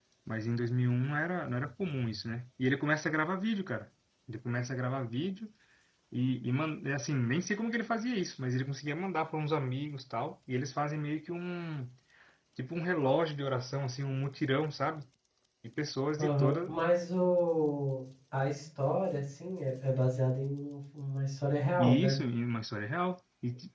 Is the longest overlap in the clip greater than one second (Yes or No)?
No